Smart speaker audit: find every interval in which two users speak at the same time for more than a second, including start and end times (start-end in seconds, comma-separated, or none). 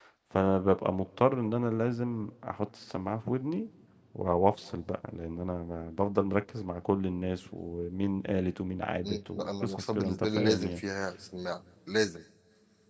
9.0-10.8